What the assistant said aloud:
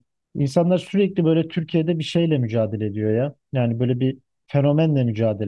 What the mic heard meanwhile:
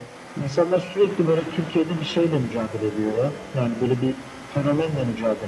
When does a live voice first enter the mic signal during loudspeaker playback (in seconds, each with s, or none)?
none